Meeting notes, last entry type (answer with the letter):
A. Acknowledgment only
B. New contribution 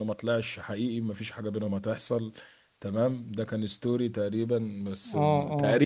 A